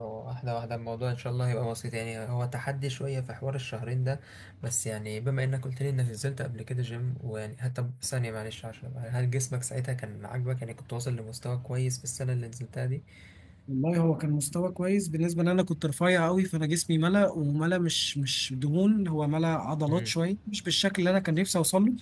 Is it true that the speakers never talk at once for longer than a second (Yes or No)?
Yes